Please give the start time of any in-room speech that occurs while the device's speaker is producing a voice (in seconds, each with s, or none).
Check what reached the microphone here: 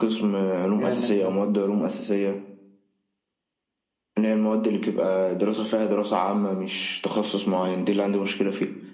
0.8 s